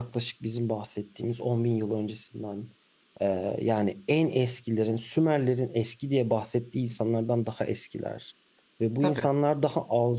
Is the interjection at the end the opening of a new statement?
No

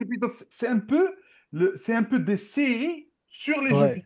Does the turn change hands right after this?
Yes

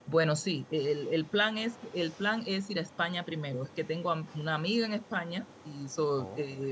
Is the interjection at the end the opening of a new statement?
No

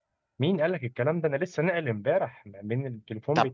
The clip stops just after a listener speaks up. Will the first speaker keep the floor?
Yes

